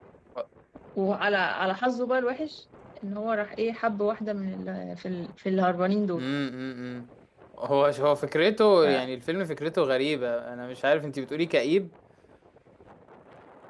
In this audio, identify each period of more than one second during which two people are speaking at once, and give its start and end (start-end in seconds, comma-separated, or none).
none